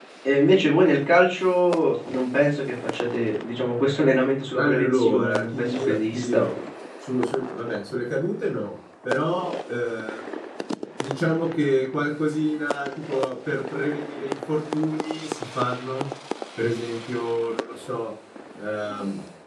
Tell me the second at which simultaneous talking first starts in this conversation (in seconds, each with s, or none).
4.6 s